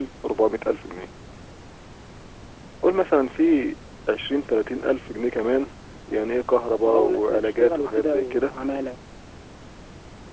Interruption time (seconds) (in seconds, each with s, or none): 6.9 s